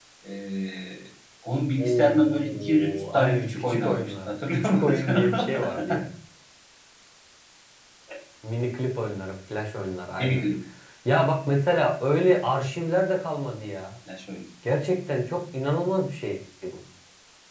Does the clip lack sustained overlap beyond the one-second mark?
No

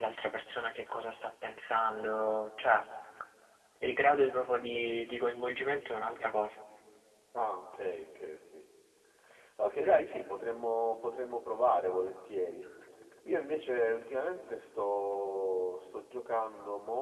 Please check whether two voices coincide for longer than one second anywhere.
No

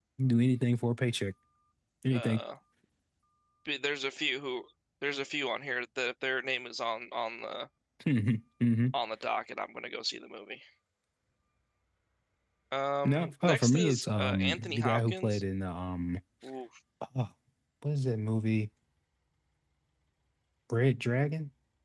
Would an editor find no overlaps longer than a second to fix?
No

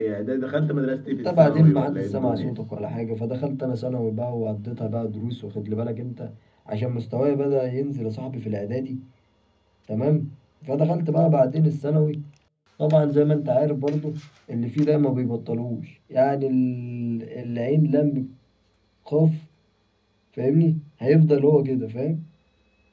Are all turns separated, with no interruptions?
No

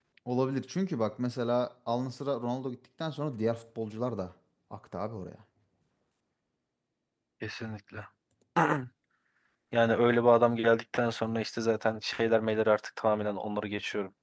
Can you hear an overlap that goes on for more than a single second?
No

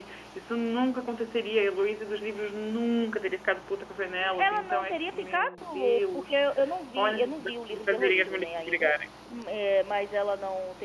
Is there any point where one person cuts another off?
Yes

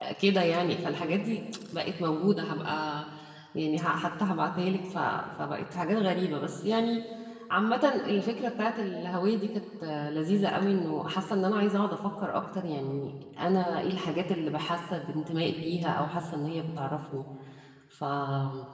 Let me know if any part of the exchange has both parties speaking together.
No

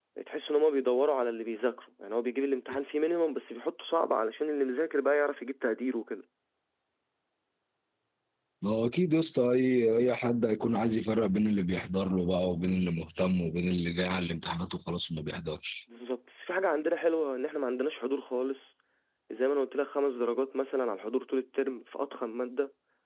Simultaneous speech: No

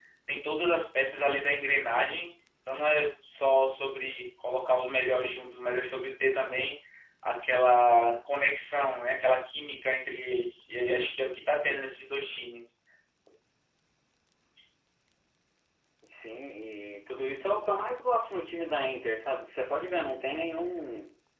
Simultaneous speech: No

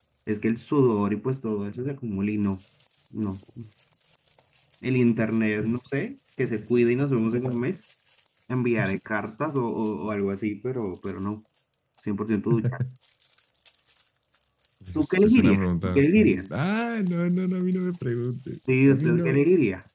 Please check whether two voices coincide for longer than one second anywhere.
Yes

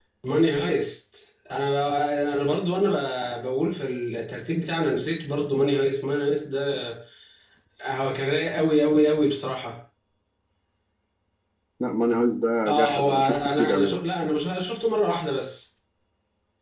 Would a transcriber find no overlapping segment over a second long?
No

